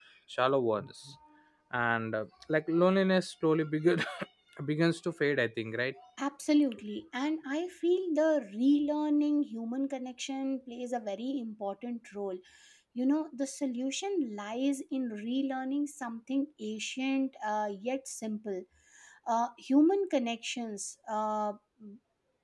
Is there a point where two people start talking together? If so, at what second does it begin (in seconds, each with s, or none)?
none